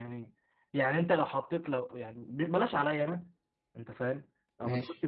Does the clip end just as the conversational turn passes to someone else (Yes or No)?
No